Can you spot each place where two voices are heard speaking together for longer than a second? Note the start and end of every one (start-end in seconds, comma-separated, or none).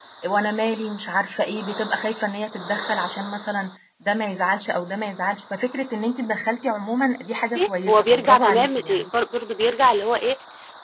7.9-9.1